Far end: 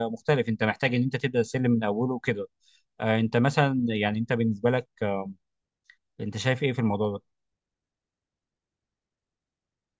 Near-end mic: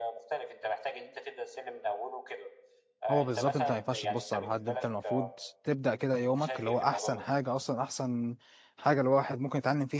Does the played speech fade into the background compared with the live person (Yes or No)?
Yes